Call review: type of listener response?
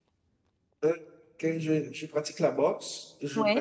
listening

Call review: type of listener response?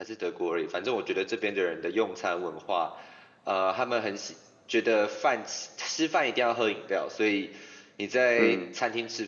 listening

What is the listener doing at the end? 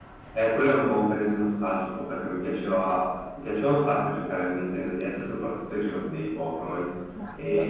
listening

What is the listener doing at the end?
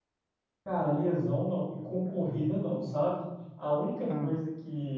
listening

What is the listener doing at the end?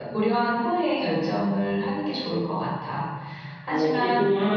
taking over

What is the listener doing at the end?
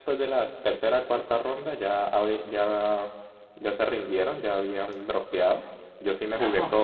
listening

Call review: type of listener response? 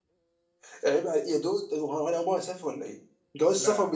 listening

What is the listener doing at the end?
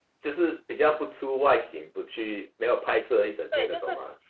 taking over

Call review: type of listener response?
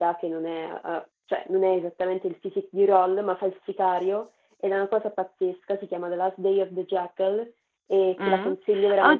taking over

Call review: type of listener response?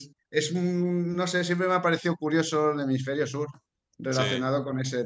listening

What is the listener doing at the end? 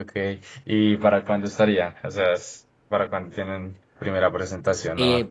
taking over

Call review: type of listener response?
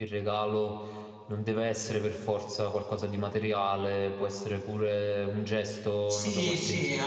taking over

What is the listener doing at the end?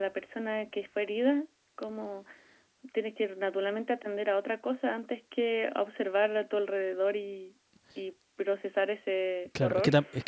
taking over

